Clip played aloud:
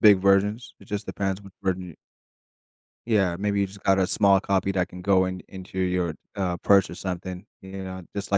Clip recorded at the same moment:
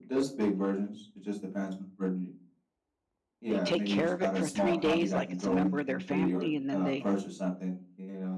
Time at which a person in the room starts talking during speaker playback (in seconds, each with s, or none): 3.5 s